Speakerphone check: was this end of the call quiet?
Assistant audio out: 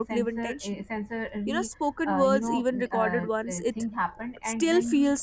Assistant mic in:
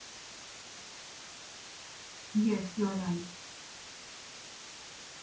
No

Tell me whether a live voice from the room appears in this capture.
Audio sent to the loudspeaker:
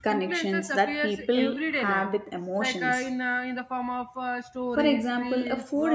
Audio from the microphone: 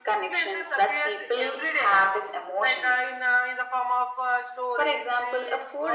No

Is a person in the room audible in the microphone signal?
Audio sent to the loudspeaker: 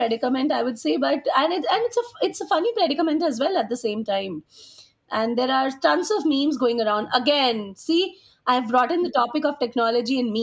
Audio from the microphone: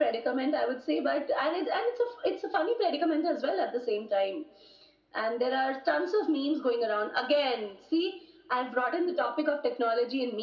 No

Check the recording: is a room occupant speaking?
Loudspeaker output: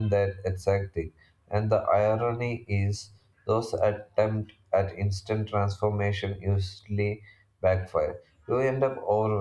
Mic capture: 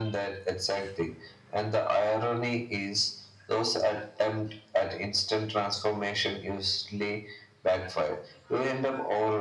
No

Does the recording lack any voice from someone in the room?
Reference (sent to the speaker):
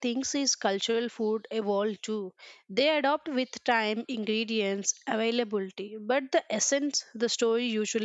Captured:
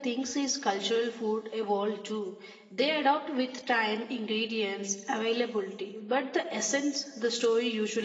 Yes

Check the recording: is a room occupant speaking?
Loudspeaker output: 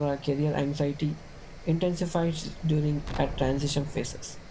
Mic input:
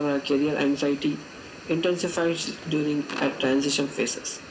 No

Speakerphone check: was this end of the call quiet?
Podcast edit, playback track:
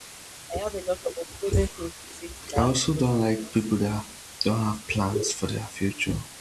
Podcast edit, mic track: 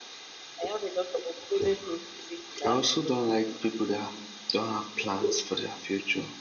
Yes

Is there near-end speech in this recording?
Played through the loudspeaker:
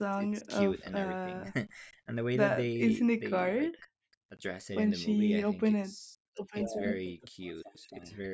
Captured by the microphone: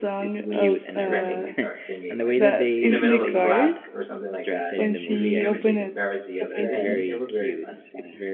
Yes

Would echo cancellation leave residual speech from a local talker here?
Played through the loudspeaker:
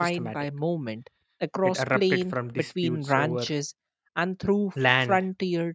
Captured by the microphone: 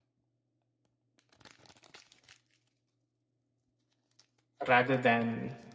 Yes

